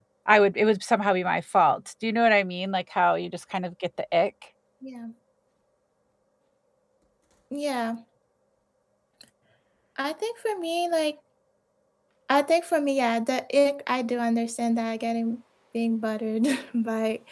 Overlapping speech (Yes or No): No